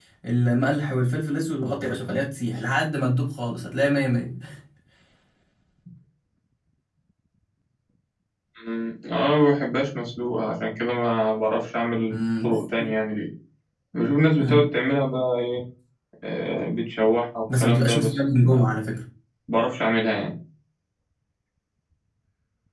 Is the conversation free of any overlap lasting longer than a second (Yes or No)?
No